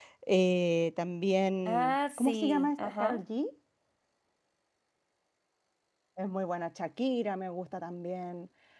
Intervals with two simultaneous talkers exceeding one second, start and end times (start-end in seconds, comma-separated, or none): 1.6-3.2